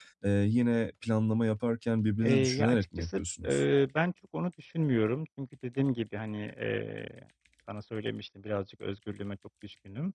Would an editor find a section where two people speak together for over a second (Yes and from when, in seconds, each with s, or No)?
Yes, from 2.2 s